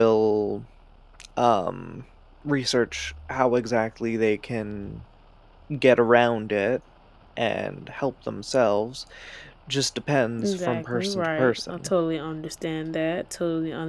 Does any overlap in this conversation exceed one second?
Yes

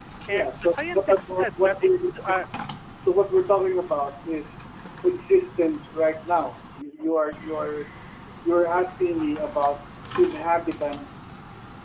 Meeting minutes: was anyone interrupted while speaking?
Yes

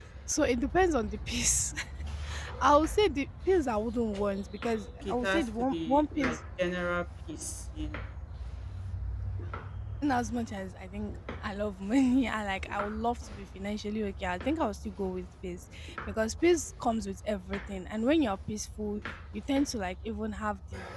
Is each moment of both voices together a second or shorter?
No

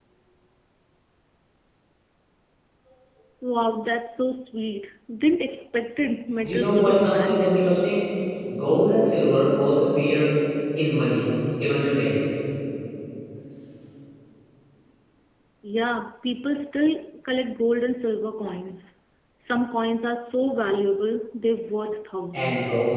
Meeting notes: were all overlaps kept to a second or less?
No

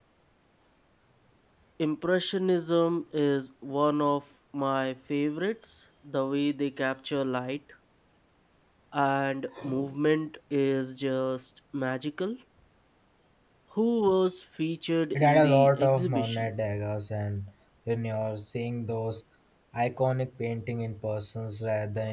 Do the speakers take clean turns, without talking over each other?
No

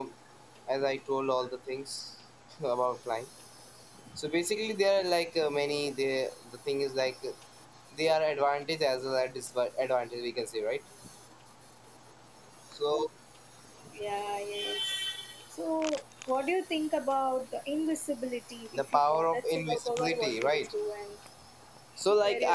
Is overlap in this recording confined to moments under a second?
No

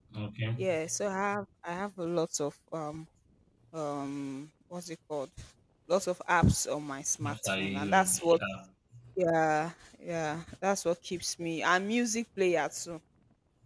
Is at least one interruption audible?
Yes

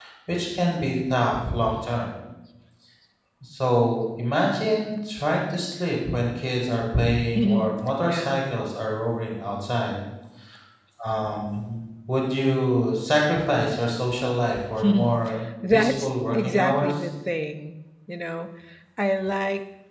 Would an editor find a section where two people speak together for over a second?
Yes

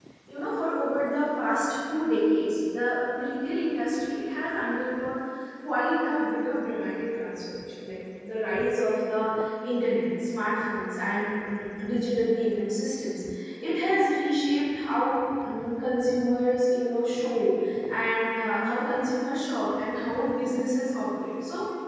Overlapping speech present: No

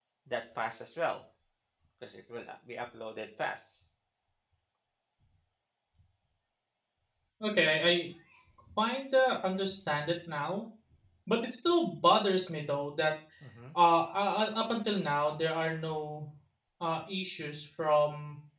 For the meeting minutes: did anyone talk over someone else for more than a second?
No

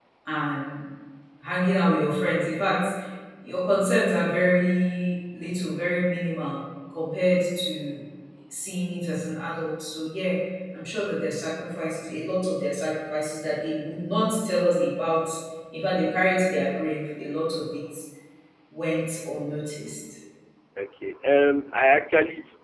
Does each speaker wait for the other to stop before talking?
Yes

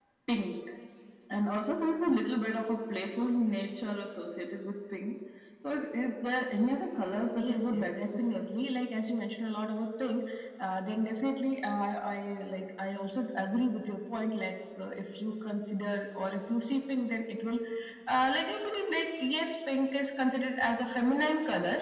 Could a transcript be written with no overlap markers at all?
No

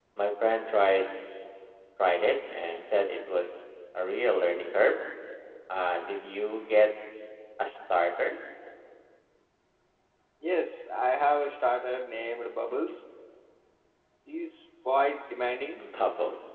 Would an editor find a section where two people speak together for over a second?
No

